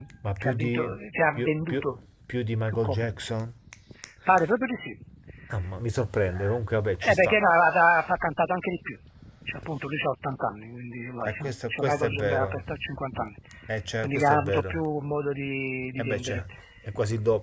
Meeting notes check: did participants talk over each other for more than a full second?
Yes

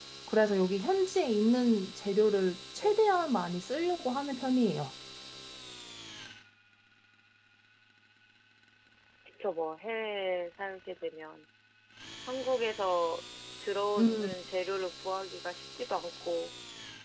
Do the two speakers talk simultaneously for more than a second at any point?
No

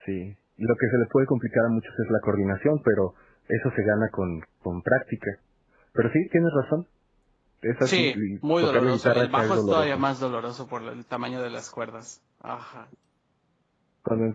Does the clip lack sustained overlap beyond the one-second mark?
No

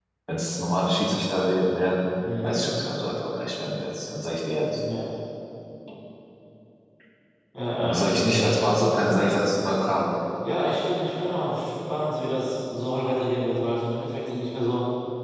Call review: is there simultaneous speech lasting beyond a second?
Yes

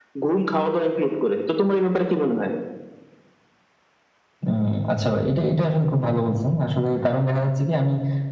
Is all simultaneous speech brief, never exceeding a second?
Yes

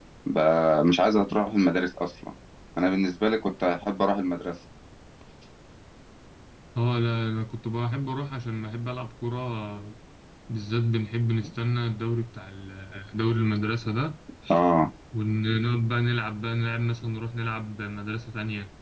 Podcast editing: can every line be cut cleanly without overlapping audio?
Yes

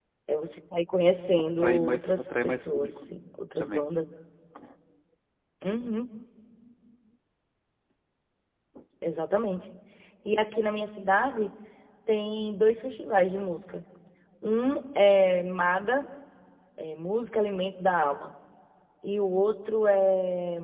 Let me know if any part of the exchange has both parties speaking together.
Yes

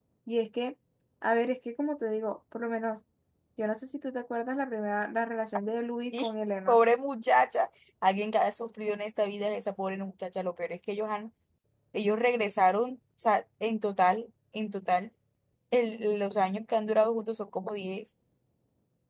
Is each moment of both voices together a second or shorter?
Yes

